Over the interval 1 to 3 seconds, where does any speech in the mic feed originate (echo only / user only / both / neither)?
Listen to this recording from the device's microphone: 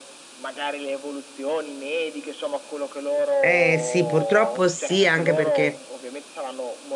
echo only